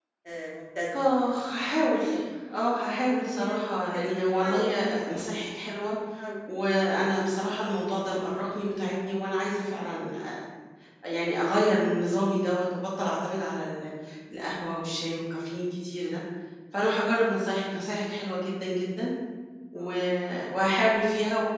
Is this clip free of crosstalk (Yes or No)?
No